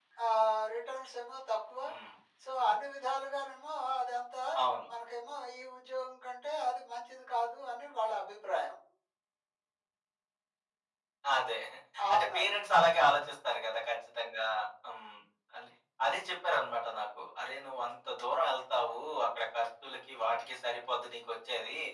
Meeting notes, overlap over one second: none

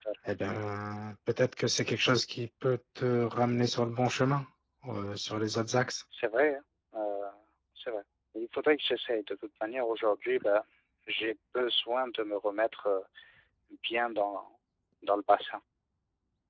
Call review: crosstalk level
none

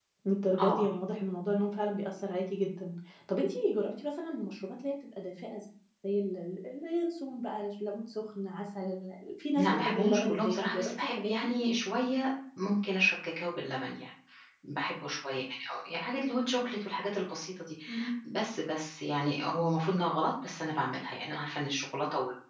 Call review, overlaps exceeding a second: present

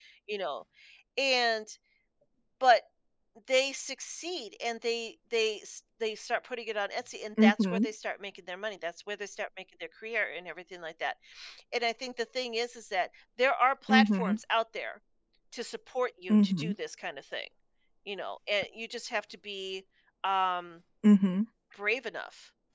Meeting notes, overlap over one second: none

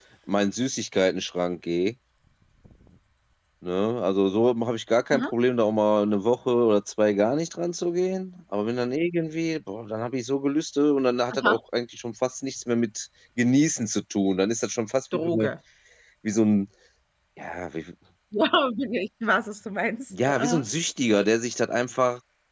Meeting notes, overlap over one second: none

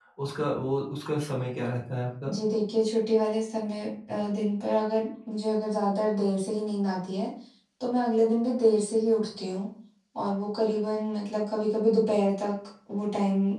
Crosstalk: none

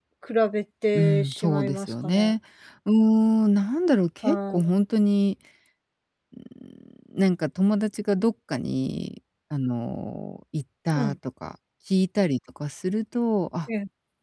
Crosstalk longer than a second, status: present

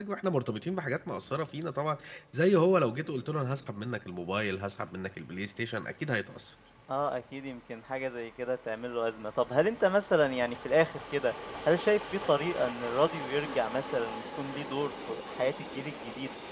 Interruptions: none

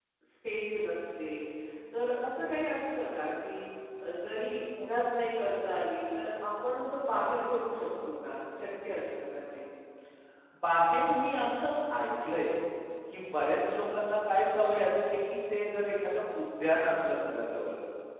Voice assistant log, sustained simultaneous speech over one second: none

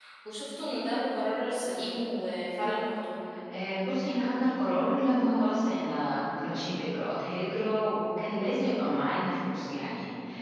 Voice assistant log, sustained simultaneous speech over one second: none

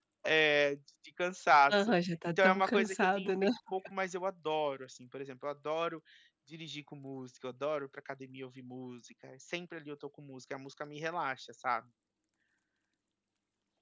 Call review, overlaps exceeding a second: present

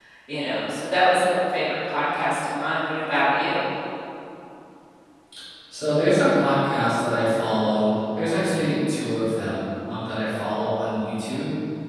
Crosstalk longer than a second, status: none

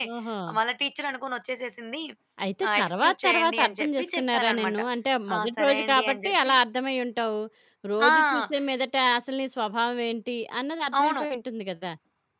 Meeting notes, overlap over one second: present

